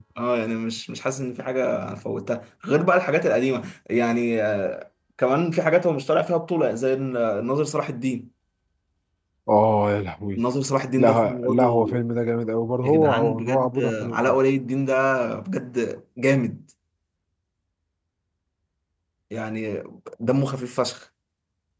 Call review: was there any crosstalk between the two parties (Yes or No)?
Yes